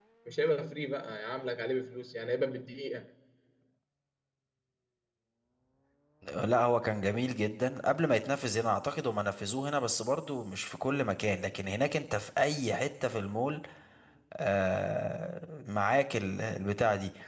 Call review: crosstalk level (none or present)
none